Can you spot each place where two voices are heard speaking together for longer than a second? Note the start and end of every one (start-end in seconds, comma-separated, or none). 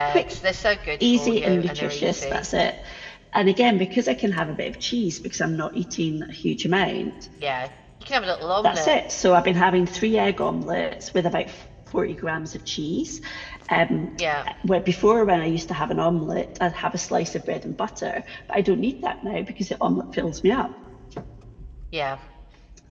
1.1-2.4